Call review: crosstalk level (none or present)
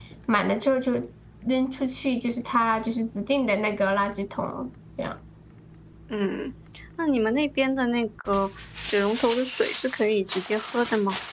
none